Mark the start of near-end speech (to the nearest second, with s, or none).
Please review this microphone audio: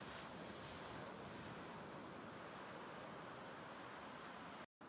none